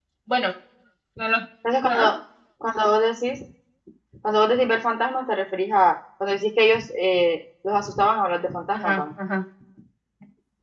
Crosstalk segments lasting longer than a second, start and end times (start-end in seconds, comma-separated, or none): none